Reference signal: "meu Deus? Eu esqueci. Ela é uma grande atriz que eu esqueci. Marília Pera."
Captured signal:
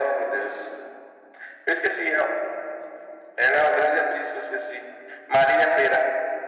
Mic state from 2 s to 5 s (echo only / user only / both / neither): echo only